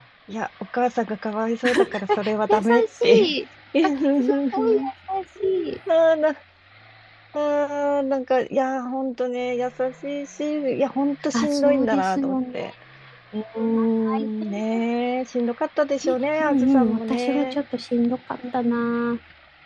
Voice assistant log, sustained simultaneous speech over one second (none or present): present